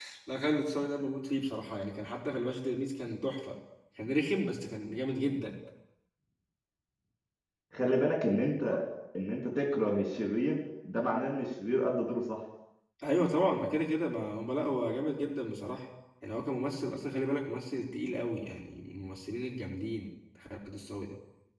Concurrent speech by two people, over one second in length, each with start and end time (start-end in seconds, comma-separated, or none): none